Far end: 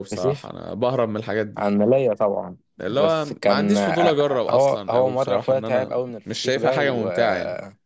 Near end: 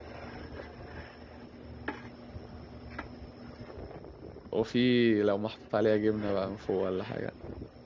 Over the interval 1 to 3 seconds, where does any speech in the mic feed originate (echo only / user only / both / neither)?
neither